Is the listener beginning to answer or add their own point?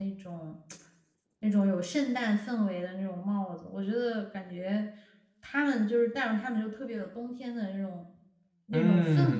Yes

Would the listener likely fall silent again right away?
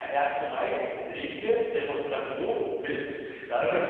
Yes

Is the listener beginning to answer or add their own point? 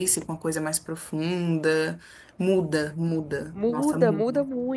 Yes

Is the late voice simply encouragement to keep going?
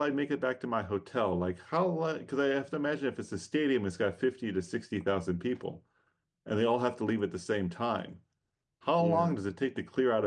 Yes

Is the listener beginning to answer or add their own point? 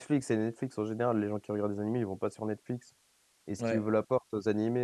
No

